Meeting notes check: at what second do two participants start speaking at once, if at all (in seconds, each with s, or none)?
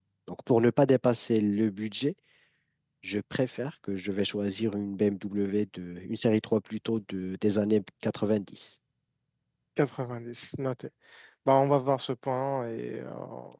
none